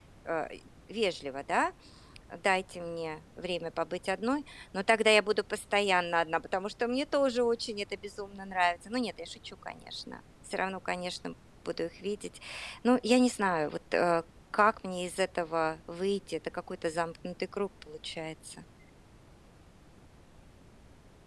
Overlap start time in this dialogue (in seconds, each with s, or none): none